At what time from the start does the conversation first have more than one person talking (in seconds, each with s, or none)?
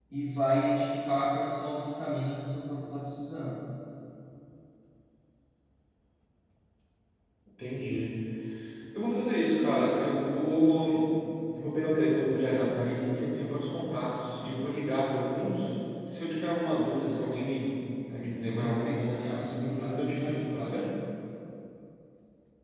18.6 s